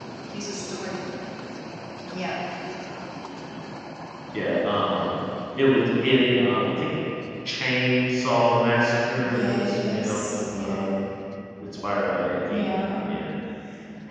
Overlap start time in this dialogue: 9.3 s

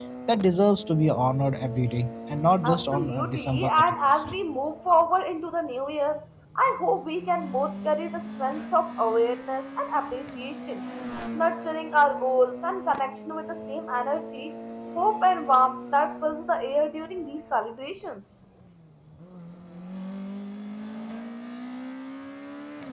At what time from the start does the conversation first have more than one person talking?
2.6 s

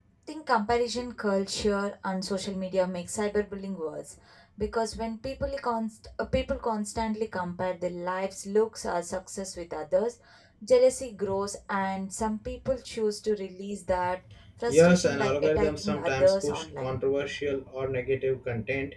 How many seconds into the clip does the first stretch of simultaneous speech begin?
14.7 s

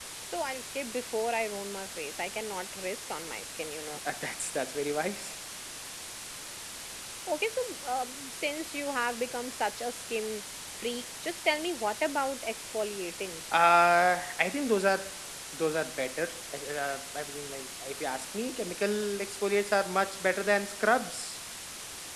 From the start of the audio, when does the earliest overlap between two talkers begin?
none

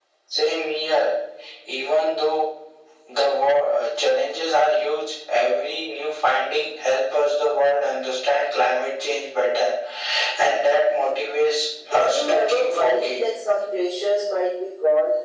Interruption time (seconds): 11.8 s

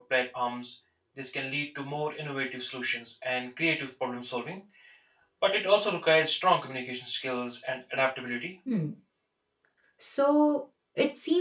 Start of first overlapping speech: none

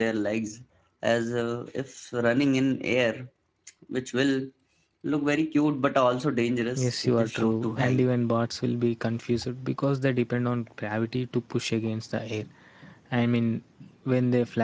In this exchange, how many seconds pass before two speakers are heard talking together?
6.8 s

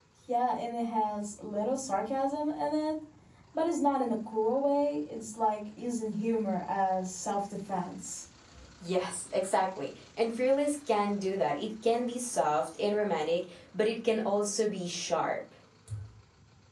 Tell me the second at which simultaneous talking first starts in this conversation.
none

